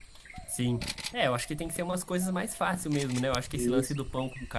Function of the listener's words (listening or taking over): listening